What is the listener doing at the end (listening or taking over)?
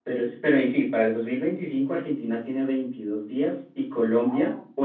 listening